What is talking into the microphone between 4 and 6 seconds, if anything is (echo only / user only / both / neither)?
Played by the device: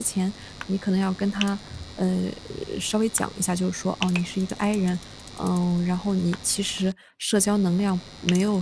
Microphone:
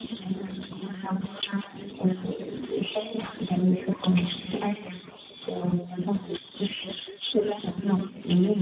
echo only